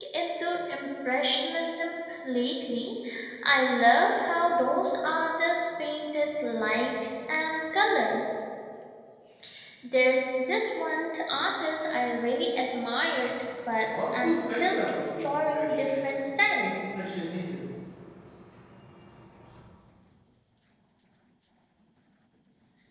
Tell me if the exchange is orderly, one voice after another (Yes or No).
No